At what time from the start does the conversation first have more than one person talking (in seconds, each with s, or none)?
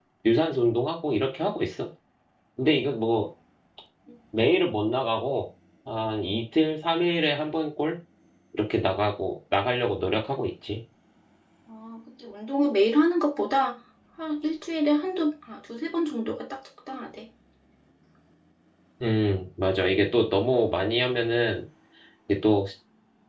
none